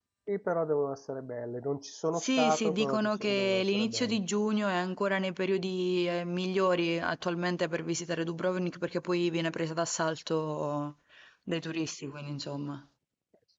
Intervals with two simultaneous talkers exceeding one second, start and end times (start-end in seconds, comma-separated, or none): 2.2-4.2